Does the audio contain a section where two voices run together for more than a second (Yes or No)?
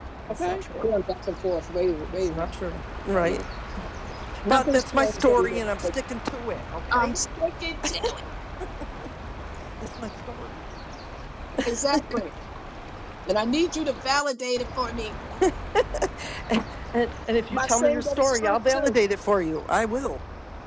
Yes